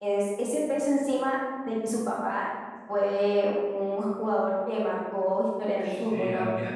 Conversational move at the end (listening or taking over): taking over